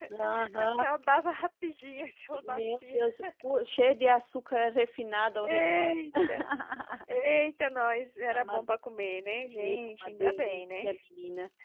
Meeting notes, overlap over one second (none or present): present